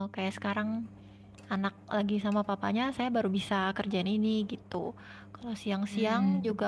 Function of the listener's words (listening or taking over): listening